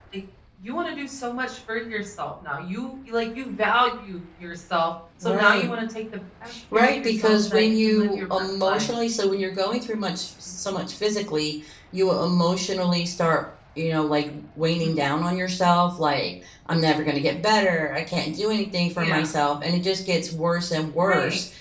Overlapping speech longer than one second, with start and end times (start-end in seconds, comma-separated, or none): 6.7-8.9